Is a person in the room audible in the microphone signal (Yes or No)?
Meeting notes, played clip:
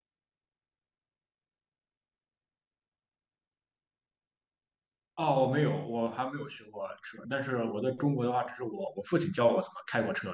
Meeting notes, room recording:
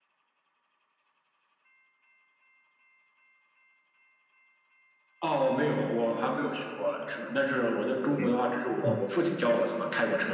Yes